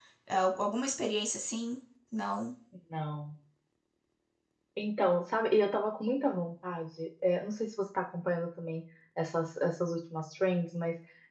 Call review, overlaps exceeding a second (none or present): none